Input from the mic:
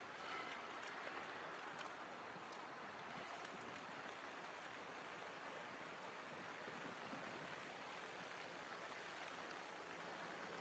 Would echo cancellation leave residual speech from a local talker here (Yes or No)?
No